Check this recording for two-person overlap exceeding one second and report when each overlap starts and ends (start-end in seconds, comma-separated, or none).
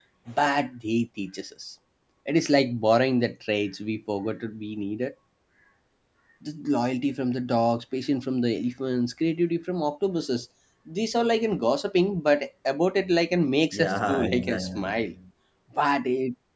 13.7-15.1